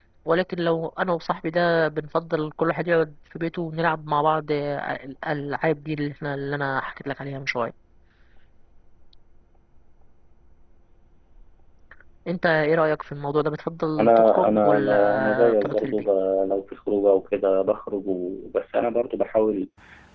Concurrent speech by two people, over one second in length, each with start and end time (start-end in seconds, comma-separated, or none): 14.0-16.1